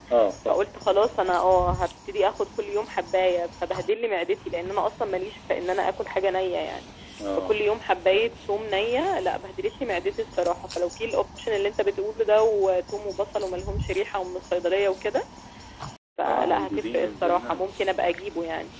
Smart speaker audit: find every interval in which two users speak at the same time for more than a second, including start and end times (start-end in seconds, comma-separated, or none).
16.2-17.7